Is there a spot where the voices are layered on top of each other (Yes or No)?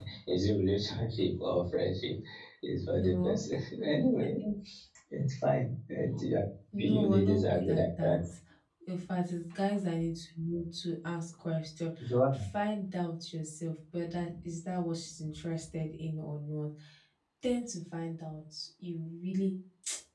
Yes